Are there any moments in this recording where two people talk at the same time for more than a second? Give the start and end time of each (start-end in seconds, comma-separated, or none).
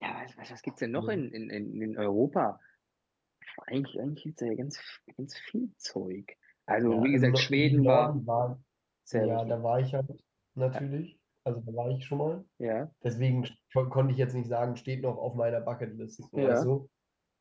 6.8-8.1